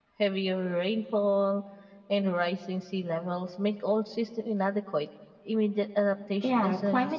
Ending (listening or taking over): taking over